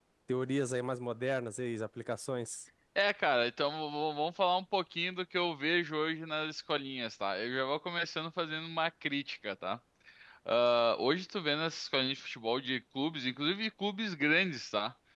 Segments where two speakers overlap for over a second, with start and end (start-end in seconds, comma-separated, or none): none